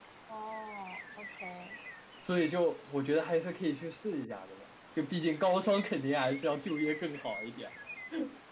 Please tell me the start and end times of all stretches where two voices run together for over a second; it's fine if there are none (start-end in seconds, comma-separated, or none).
none